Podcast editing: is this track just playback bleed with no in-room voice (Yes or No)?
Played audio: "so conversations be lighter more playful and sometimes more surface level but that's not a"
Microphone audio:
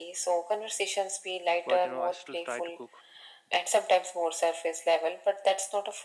No